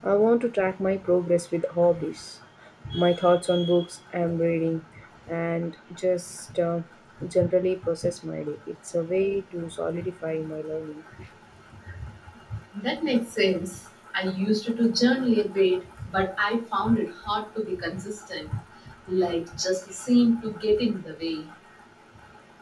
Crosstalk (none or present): none